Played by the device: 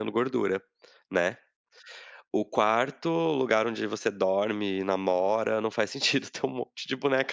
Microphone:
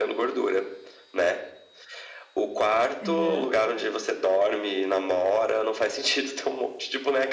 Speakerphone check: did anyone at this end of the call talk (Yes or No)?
Yes